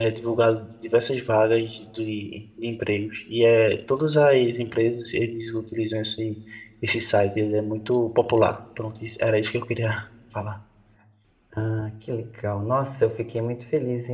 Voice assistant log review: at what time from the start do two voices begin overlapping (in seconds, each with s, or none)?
none